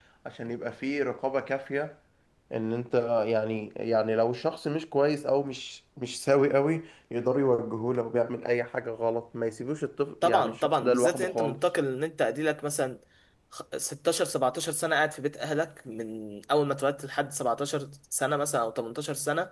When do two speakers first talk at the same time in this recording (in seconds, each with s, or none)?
10.2 s